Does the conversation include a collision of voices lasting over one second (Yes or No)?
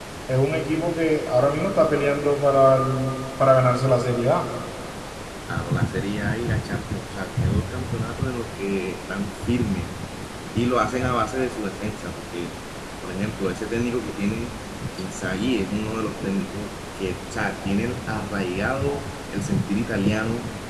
No